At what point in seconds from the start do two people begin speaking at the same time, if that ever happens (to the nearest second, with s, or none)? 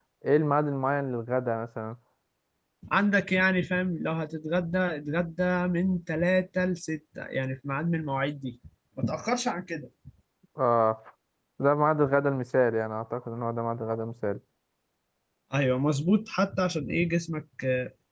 none